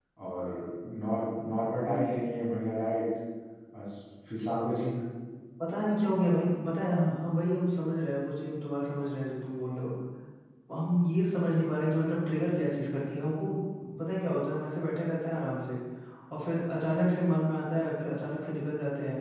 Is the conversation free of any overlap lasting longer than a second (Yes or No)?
Yes